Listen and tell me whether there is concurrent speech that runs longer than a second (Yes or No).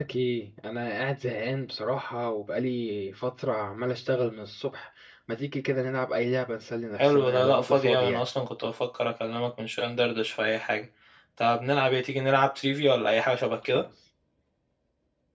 Yes